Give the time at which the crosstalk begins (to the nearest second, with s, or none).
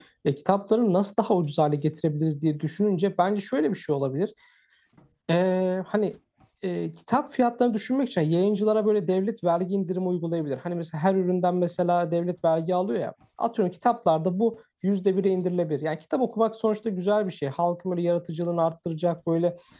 none